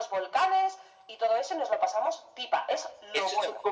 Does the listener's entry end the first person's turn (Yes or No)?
Yes